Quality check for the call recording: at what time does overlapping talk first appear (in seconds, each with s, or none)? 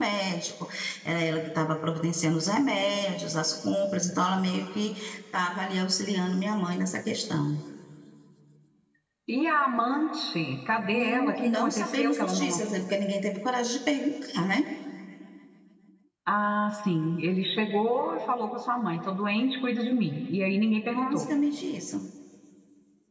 10.9 s